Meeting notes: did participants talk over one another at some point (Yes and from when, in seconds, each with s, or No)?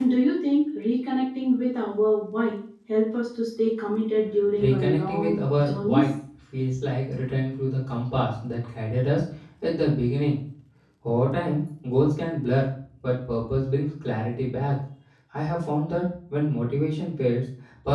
Yes, from 4.6 s